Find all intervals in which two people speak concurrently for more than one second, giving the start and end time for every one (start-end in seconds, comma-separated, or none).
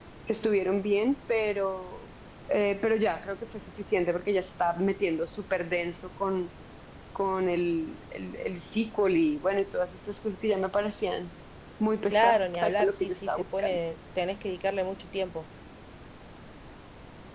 12.1-13.8